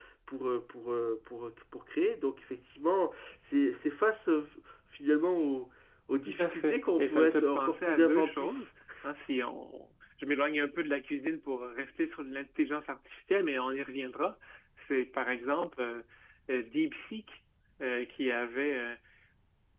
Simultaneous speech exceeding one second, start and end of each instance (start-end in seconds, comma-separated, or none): 6.2-8.6